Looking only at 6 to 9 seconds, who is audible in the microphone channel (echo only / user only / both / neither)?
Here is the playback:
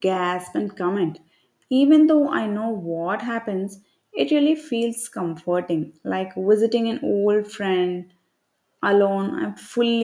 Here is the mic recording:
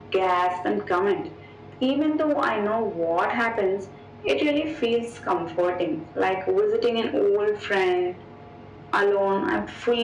echo only